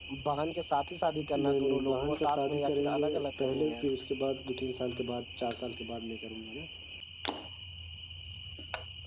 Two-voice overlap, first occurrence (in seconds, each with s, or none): 1.3 s